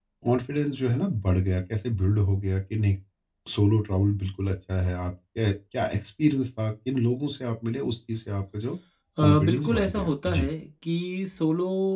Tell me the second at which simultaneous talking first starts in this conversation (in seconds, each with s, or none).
9.2 s